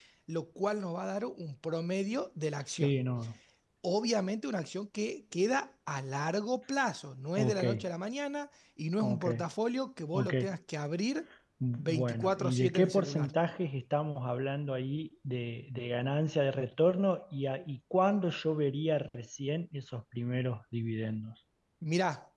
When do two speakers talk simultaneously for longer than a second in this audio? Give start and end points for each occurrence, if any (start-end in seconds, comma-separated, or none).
11.8-13.3